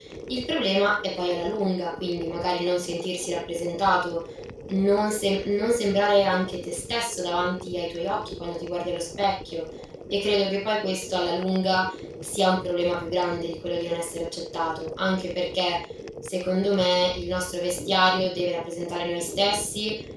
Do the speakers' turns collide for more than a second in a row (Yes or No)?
No